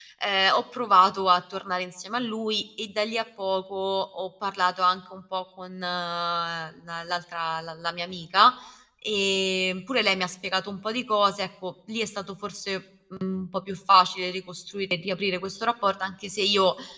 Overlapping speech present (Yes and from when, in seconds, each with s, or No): No